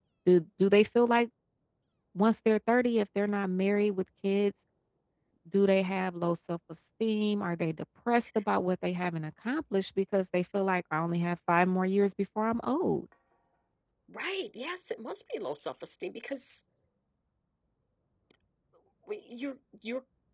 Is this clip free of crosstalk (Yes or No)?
Yes